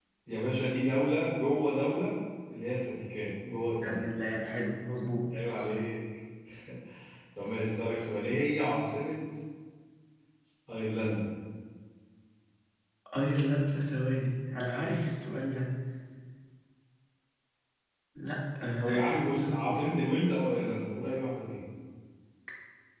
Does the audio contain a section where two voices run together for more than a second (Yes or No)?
Yes